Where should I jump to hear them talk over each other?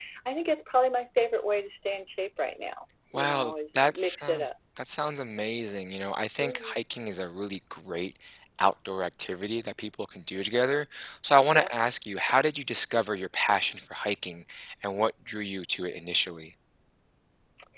3 s

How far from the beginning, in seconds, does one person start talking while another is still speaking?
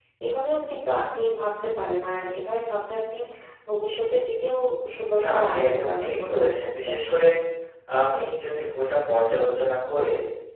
5 s

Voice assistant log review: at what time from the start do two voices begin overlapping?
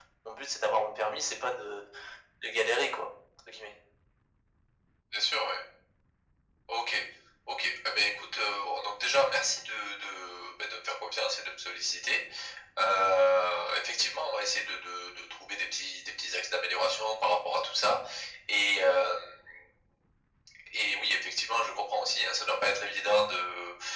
none

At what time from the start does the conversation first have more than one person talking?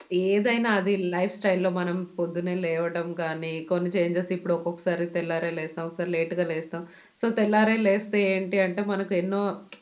none

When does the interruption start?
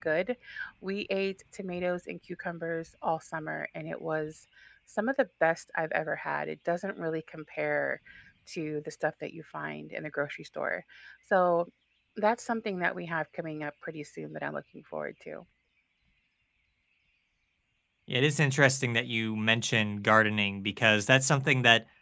none

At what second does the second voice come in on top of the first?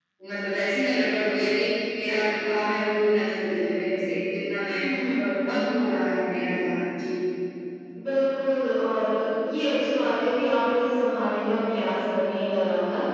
none

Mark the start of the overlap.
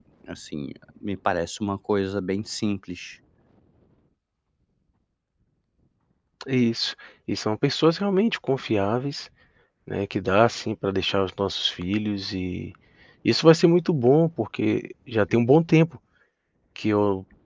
none

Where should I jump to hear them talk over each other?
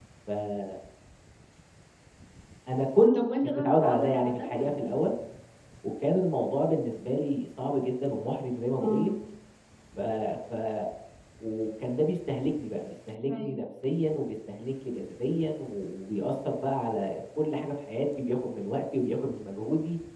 3 s

